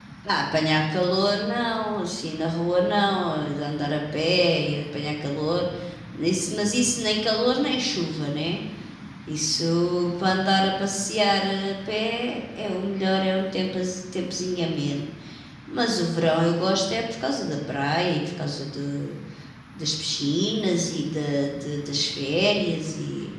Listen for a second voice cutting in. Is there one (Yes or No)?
No